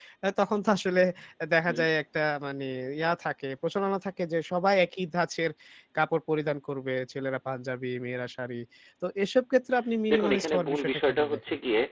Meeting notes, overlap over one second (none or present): present